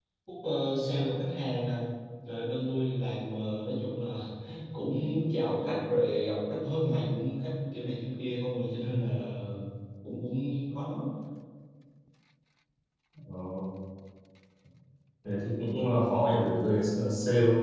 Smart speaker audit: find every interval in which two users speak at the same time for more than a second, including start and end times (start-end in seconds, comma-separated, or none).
none